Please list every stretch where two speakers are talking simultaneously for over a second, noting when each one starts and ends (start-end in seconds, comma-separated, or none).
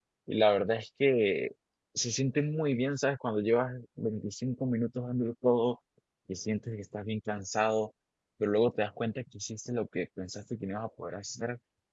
none